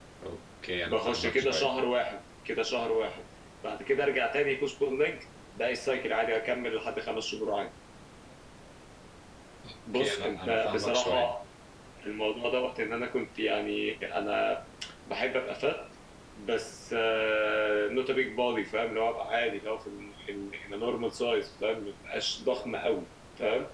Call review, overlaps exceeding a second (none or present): present